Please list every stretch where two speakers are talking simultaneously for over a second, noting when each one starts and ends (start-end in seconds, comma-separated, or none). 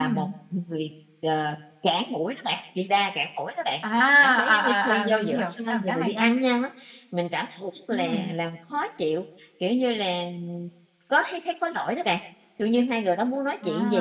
4.0-6.3